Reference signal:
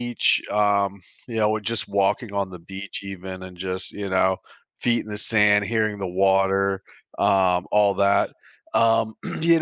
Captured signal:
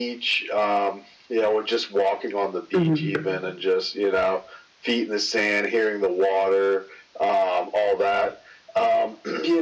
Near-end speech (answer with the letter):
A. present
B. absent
A